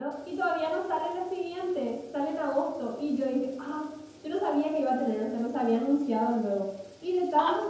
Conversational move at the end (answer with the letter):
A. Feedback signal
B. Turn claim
A